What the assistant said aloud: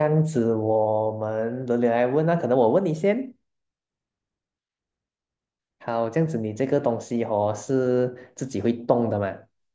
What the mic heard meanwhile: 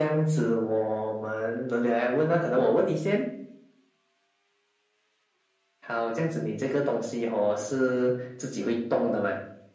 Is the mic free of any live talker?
Yes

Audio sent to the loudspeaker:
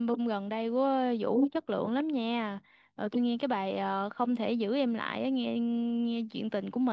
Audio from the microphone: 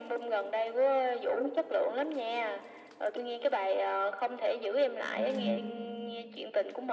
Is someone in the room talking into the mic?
Yes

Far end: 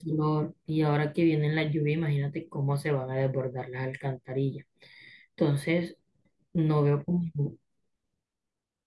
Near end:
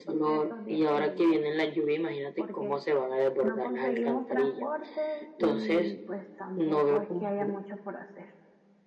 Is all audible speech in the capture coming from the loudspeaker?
No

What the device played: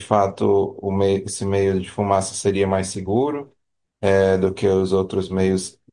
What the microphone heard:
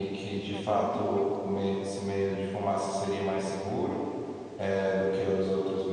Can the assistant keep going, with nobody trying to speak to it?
No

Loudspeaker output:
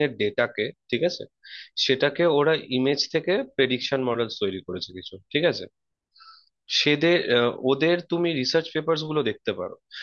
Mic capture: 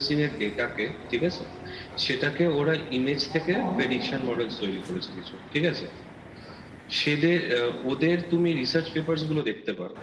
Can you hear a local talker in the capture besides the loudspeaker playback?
Yes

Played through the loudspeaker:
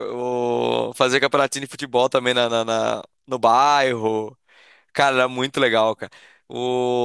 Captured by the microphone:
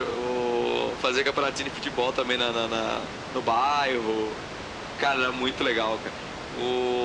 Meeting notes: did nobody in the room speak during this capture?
Yes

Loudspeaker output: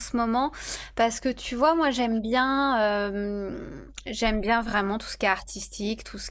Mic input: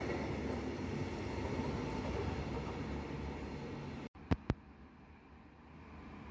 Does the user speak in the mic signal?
No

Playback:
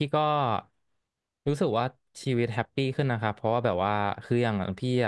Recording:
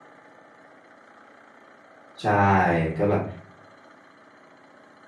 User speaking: Yes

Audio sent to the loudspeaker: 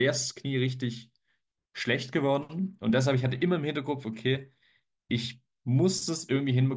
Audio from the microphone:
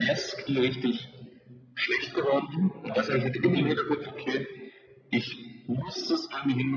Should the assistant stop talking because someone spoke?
Yes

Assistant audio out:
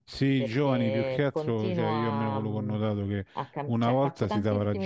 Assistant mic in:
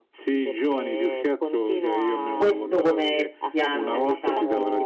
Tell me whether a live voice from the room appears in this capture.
Yes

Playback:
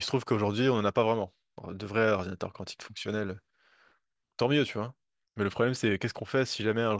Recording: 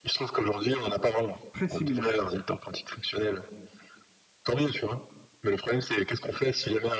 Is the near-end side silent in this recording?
No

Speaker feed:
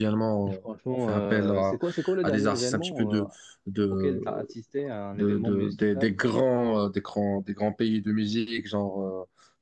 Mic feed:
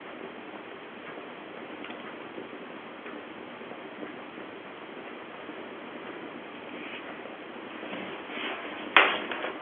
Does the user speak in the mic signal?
No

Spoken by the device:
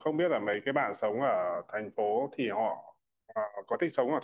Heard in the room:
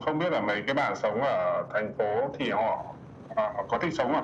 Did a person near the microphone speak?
No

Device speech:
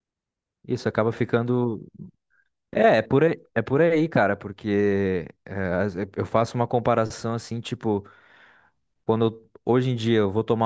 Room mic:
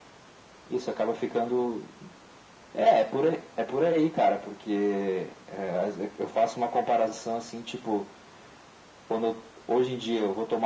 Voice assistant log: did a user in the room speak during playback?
No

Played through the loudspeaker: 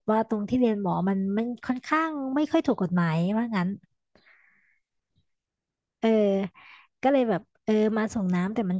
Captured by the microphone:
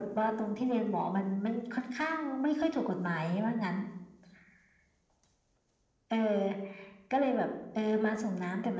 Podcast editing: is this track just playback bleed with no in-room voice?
Yes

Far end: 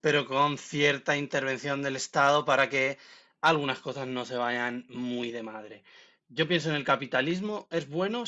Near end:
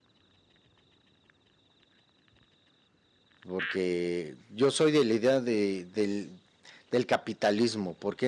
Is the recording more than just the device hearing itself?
Yes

